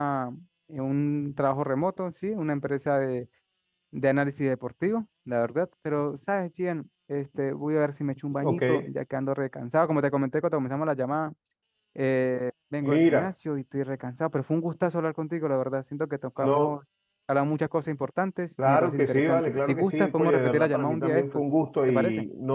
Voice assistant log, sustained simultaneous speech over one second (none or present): present